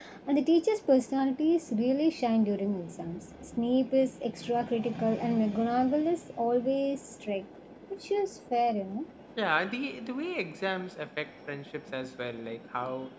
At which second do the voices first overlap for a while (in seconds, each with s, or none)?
none